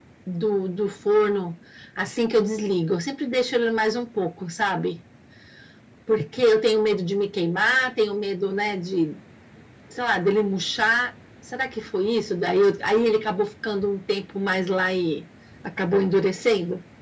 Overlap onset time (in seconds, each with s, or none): none